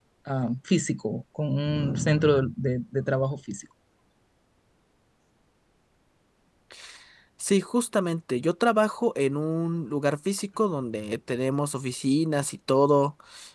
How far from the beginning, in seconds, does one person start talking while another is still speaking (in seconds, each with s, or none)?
none